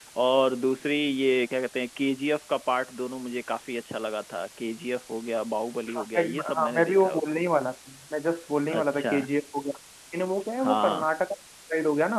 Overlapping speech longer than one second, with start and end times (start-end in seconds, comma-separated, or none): 5.9-7.4